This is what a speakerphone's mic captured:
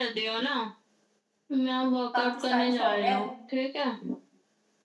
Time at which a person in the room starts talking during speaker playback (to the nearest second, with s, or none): 2 s